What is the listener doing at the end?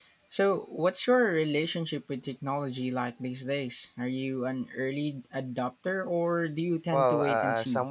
taking over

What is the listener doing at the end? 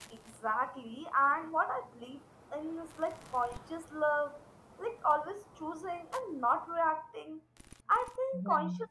listening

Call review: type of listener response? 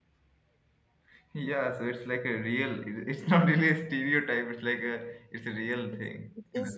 taking over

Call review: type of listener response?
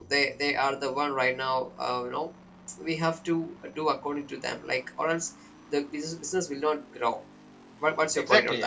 taking over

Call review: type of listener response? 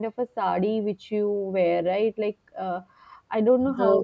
listening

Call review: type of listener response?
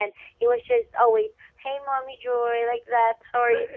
taking over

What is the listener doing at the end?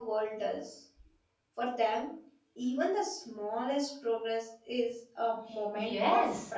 taking over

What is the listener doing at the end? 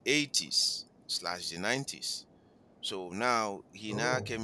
listening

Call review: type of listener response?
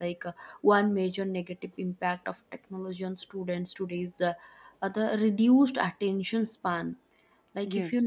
listening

